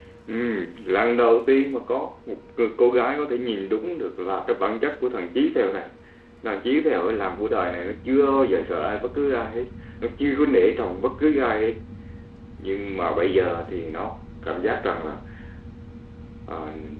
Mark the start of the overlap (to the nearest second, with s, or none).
none